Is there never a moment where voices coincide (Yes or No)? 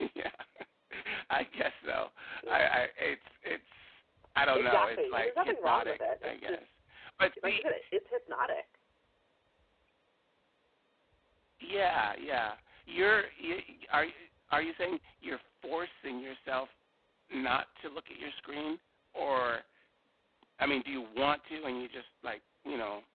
No